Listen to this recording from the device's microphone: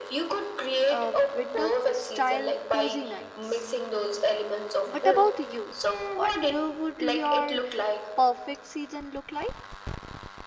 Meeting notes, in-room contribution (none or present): present